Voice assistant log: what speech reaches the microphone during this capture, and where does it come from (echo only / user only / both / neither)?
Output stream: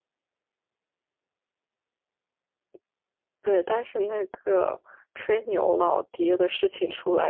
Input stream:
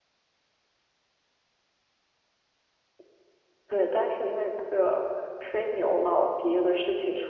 echo only